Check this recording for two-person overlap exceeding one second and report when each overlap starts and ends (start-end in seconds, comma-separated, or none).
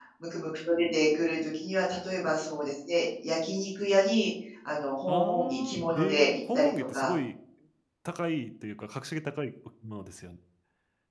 5.1-7.1